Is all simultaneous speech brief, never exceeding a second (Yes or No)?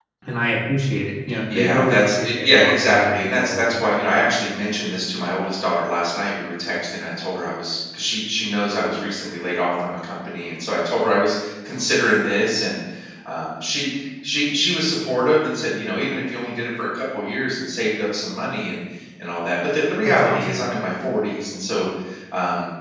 No